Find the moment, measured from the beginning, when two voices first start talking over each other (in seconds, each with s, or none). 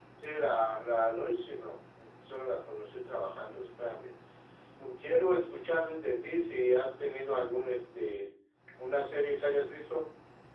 none